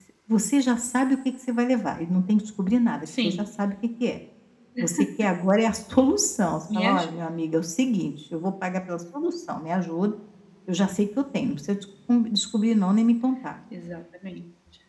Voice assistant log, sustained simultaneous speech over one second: none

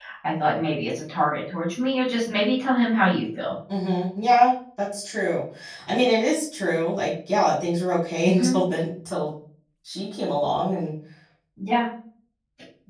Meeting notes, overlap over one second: none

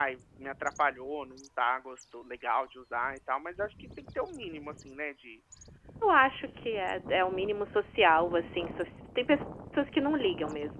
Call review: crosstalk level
none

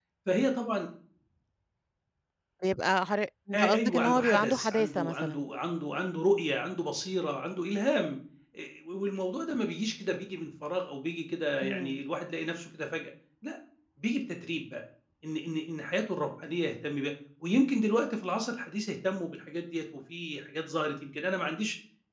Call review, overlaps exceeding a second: present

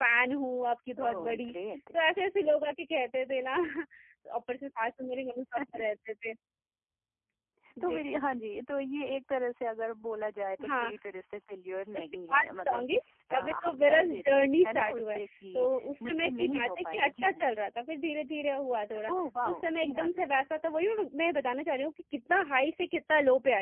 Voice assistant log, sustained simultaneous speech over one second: present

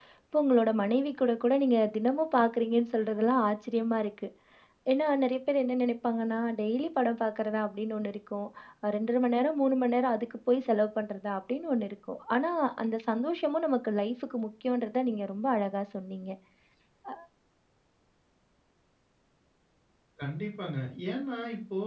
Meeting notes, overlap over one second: none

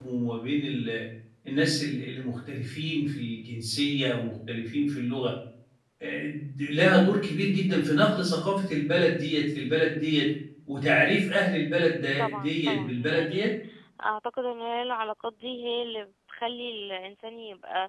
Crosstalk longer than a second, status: present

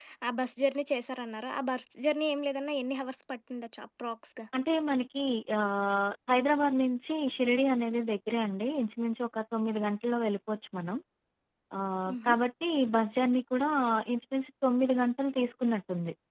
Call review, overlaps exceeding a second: none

